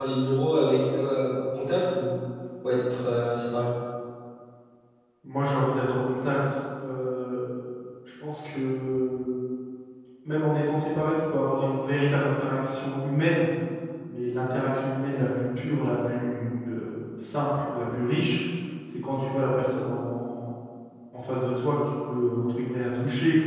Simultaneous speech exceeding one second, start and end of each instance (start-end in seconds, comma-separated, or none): none